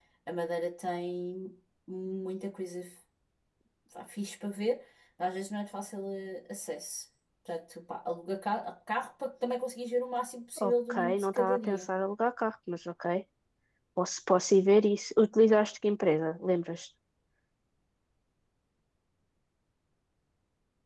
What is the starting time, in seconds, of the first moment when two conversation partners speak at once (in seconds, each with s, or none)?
10.6 s